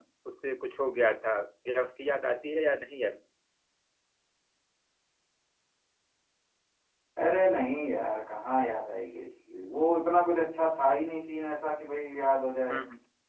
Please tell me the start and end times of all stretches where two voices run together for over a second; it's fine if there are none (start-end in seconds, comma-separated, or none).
none